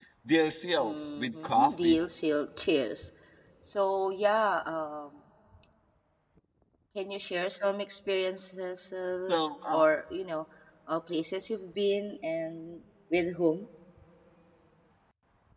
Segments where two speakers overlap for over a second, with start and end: 0.8-2.0

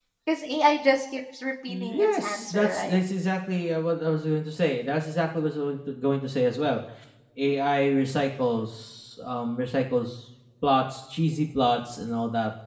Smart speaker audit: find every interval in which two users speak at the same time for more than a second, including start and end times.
1.7-3.0

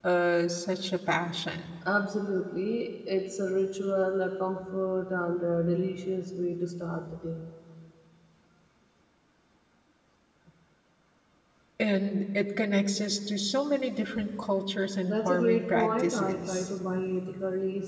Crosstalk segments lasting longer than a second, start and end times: 15.0-16.7

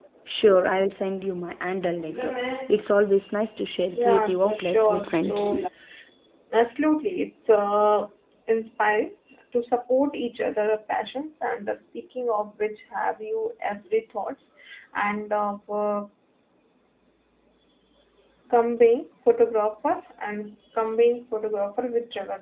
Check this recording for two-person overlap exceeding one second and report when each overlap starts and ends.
3.9-5.5

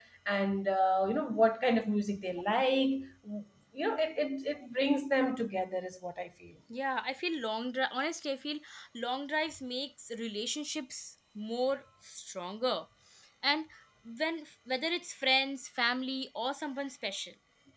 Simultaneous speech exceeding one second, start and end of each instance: none

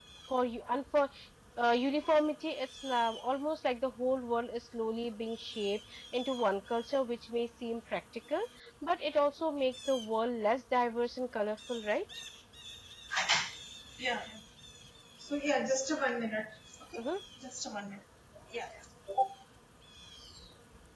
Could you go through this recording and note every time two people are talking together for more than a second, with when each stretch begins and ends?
none

